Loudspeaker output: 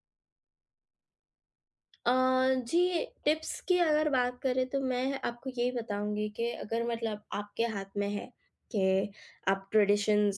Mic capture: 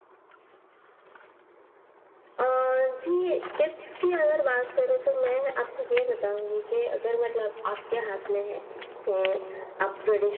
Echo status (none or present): present